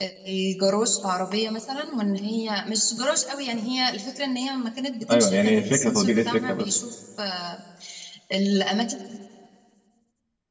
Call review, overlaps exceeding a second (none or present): present